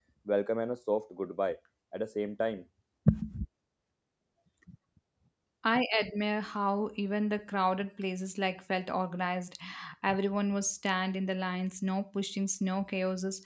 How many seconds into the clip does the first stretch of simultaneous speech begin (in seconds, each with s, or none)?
none